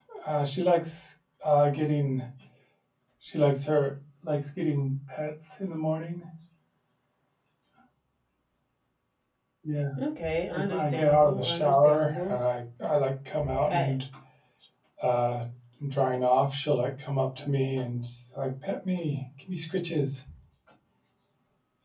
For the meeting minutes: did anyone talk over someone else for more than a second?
Yes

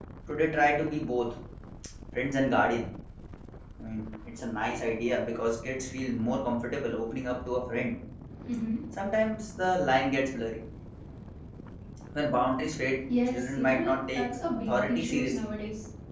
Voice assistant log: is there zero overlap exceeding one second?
No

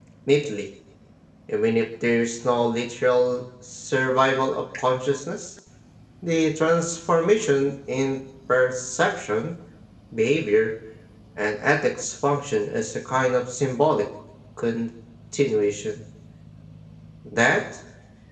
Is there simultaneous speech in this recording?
No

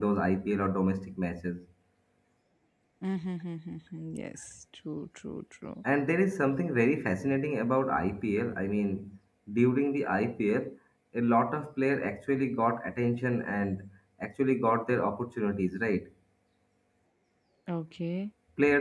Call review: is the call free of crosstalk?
Yes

